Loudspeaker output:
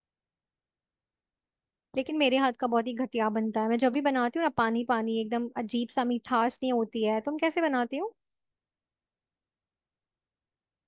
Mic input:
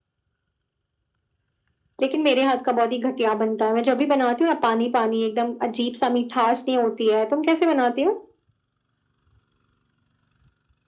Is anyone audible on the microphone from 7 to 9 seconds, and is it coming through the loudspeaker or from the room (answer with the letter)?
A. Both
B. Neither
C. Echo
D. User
C